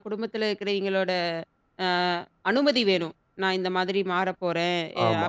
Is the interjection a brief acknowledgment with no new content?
Yes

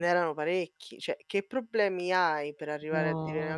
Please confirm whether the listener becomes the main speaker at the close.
No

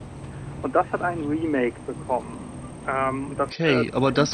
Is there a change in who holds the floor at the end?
Yes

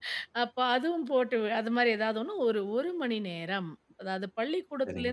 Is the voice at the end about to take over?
No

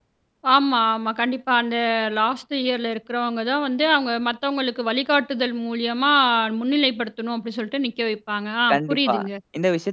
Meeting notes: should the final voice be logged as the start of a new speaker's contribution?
Yes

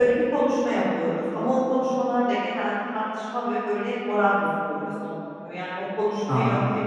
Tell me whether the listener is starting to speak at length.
No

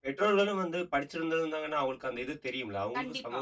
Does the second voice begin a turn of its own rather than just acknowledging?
Yes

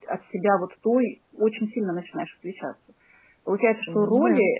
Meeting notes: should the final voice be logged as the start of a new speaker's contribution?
No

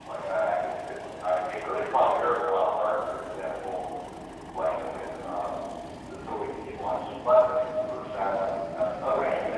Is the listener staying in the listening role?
Yes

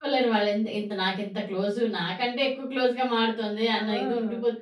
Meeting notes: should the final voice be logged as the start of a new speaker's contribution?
Yes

